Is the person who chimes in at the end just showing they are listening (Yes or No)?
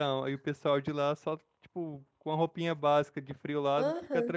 No